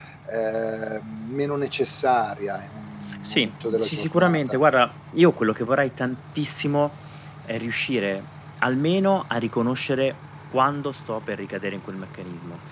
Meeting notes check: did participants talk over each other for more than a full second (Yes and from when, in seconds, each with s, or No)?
Yes, from 3.2 s